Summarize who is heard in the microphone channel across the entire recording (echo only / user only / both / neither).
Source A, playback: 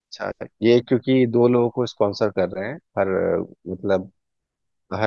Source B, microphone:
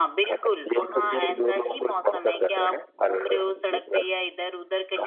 both